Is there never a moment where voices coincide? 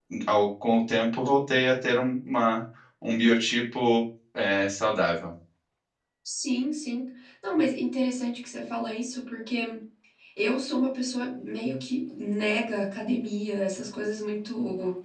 Yes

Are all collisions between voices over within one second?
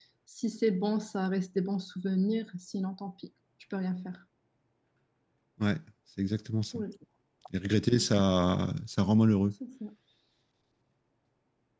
Yes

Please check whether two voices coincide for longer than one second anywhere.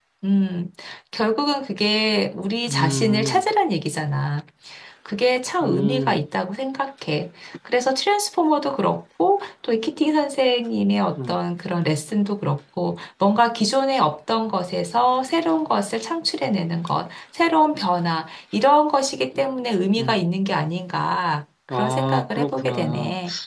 Yes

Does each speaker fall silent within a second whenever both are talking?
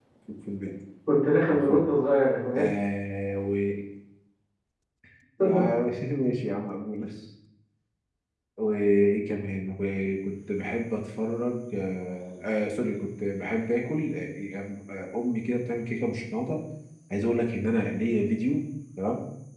Yes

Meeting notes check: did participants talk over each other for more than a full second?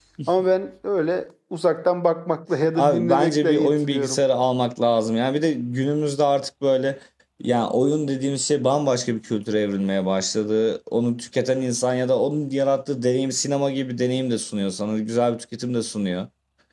Yes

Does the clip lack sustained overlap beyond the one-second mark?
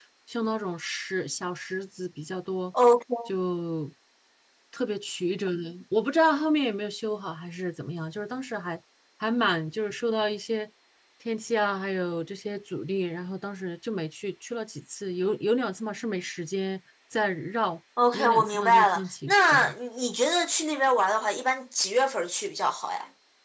No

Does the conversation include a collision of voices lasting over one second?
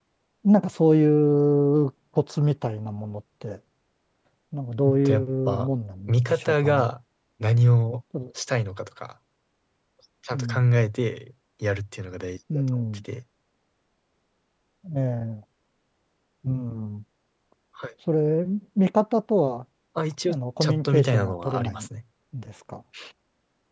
Yes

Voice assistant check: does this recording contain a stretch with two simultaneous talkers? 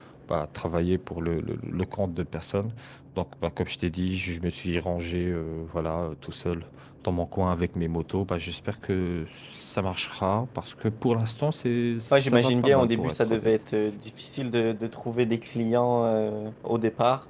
Yes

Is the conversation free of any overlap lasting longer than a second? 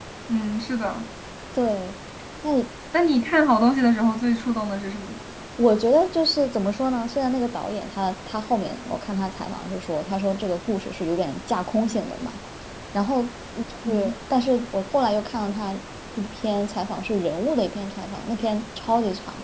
Yes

